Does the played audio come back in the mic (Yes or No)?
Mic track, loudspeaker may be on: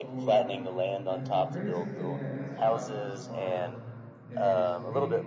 Yes